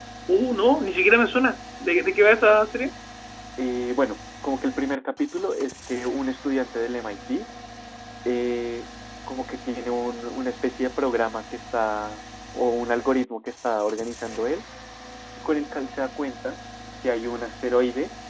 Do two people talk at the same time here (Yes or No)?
No